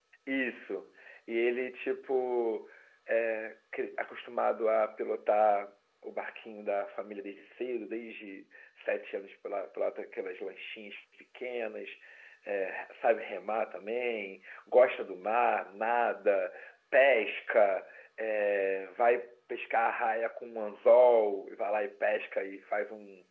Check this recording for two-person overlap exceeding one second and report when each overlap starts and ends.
none

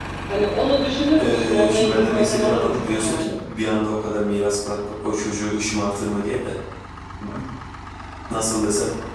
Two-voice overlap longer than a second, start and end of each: 1.2-3.4

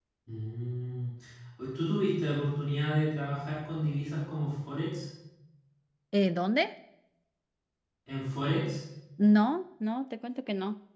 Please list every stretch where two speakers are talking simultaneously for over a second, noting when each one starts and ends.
none

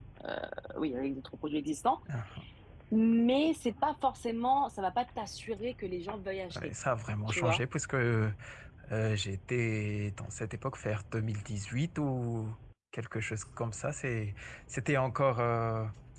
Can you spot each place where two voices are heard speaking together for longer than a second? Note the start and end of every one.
none

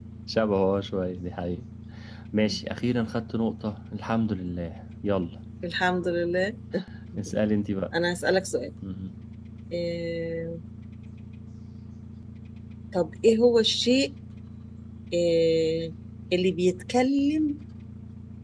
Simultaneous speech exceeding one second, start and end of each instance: none

